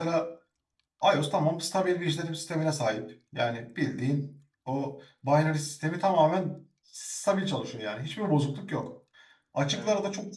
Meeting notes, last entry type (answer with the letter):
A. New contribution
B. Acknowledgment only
B